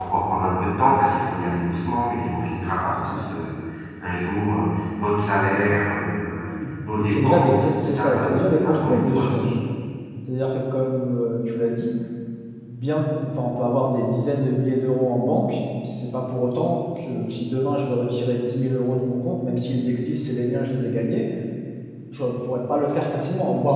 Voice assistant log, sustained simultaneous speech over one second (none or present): present